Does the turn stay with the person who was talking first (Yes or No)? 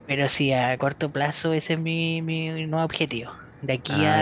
Yes